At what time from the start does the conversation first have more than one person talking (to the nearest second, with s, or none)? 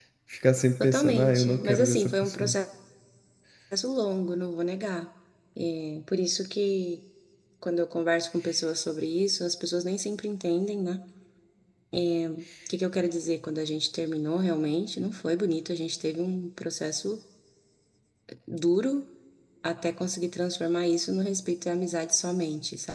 1 s